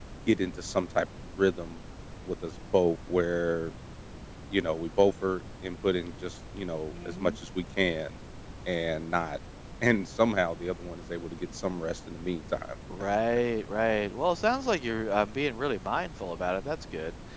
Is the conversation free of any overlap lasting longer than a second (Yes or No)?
Yes